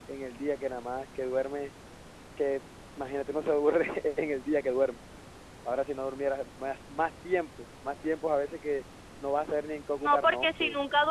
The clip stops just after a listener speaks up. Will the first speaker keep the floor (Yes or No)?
No